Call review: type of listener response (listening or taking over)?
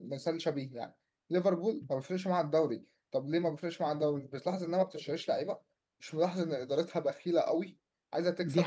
taking over